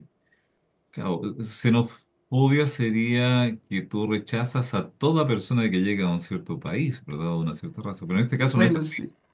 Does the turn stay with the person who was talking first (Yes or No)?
Yes